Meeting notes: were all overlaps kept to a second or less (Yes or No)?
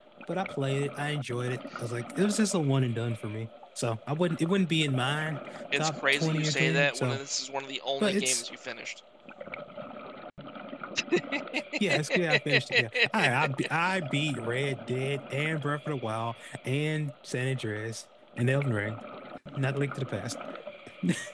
No